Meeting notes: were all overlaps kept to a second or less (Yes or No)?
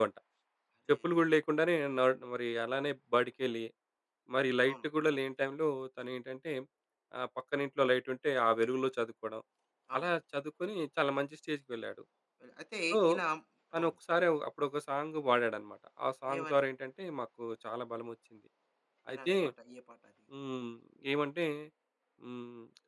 Yes